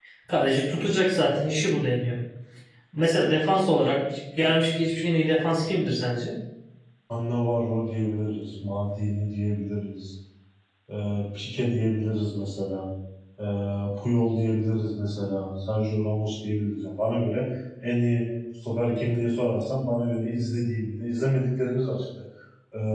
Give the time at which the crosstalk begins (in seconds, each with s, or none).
none